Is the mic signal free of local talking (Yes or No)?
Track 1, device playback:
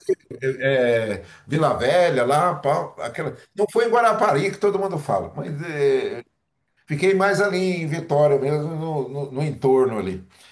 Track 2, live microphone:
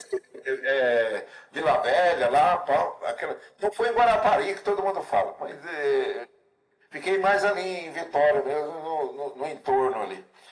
Yes